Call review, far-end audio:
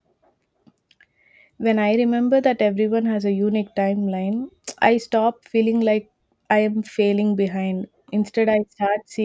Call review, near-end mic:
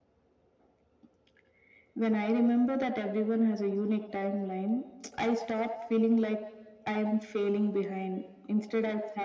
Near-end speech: none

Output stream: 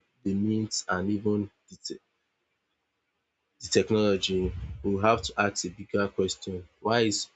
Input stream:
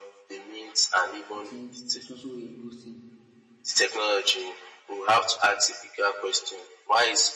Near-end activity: present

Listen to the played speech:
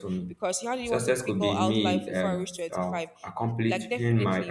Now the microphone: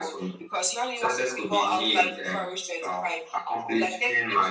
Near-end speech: none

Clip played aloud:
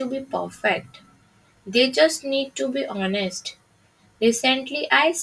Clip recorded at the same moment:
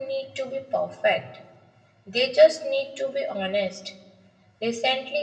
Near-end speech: none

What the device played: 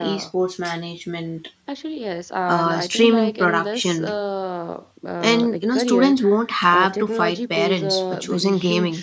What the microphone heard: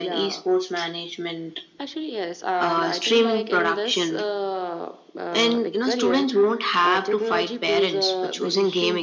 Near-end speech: none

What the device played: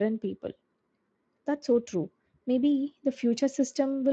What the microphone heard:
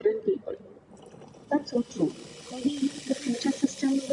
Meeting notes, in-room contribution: none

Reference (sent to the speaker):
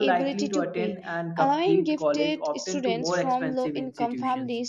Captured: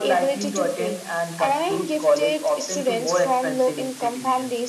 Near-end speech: none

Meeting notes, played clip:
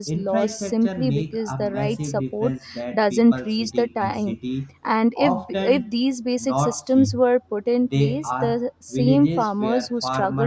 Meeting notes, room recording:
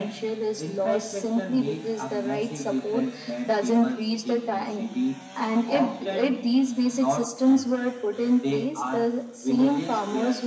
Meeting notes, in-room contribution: none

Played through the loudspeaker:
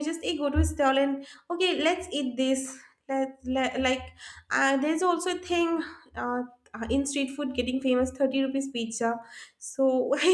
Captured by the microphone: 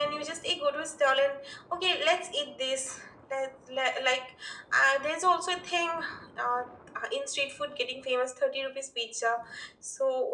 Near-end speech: none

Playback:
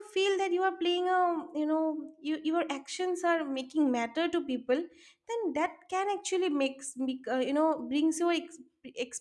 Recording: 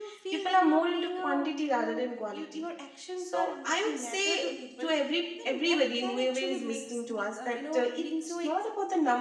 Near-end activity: present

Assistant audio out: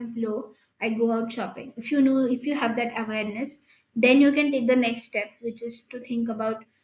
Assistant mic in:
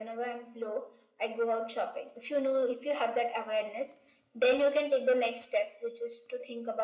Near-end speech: none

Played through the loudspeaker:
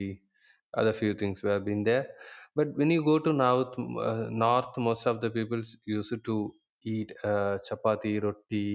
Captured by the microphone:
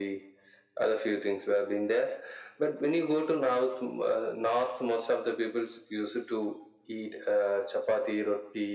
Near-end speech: none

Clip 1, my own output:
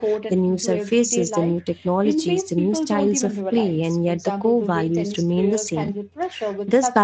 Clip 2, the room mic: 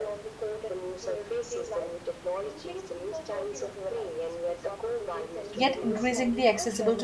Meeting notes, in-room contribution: present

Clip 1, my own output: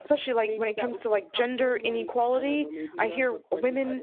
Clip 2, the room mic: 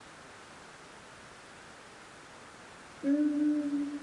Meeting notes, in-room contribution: present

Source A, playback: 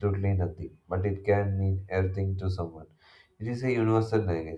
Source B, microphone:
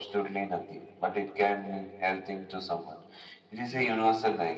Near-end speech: present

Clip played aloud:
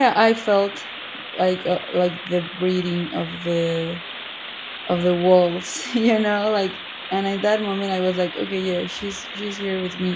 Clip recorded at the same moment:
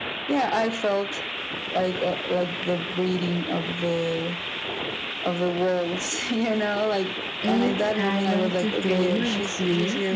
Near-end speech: present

